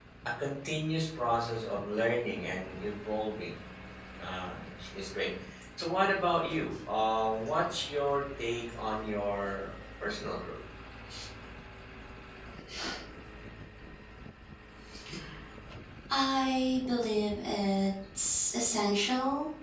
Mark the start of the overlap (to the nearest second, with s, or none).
none